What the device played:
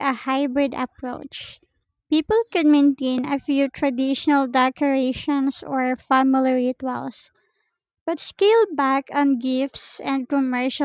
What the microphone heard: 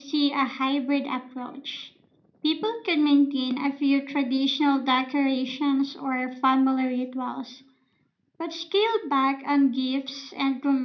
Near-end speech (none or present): none